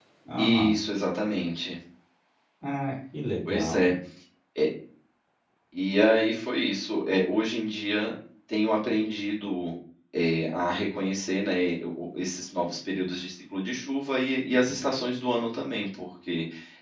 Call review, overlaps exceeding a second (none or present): none